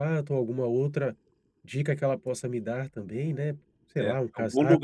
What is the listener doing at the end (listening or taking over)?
taking over